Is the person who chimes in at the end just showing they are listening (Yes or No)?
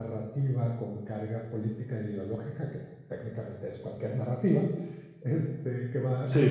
No